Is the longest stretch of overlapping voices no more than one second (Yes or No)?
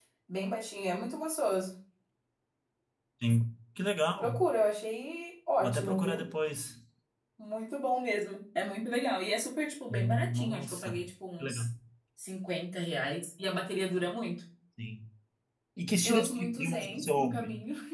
No